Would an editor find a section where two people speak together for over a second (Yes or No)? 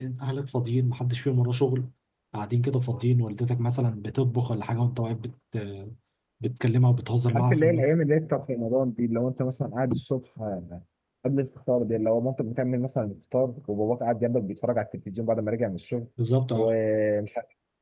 No